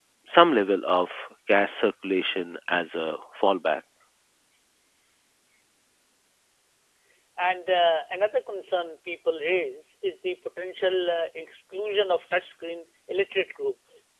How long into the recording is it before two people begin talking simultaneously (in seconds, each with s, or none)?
none